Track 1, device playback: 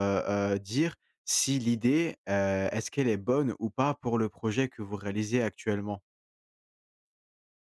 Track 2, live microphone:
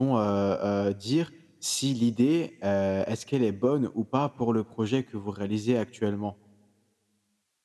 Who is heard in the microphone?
echo only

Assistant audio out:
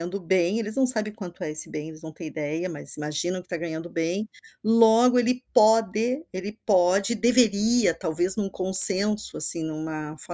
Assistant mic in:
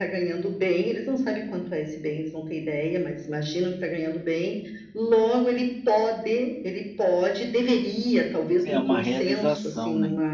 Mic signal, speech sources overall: both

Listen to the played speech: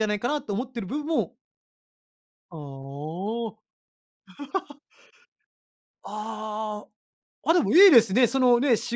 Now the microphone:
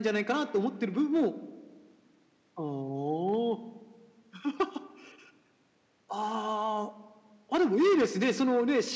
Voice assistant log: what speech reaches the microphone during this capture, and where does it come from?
echo only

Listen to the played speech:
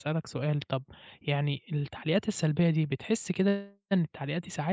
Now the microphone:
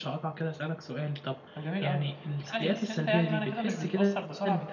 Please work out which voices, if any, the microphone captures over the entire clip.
both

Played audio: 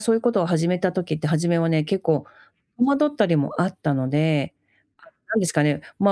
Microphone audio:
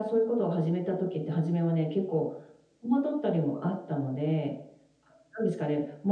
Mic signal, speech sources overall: echo only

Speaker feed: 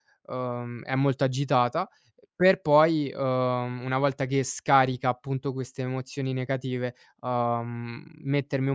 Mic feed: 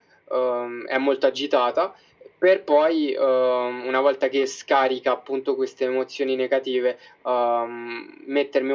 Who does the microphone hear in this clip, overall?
echo only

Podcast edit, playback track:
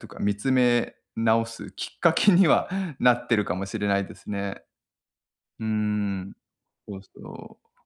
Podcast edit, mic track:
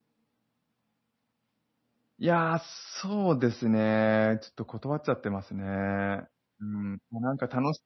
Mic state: user only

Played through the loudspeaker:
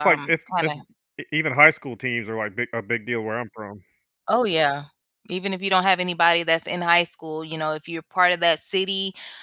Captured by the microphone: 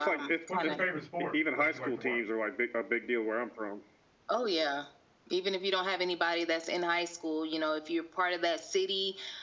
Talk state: both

